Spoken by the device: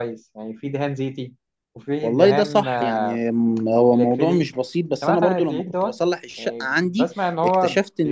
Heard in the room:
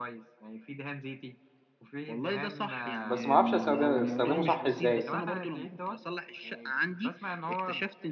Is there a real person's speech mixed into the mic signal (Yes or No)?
Yes